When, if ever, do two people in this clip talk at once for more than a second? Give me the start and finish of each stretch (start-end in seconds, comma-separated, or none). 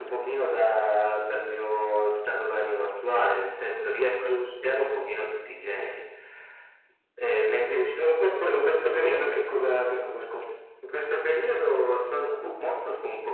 none